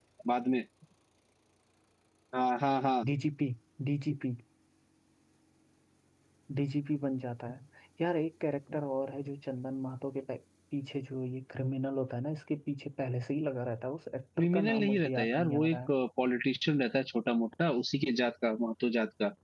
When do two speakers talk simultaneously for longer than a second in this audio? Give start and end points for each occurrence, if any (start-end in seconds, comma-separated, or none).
14.4-15.9